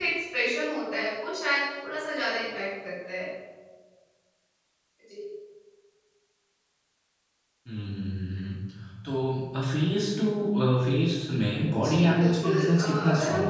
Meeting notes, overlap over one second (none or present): present